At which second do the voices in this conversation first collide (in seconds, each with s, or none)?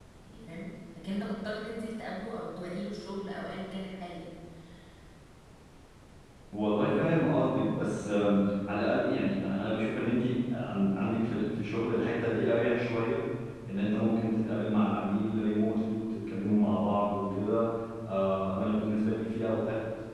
none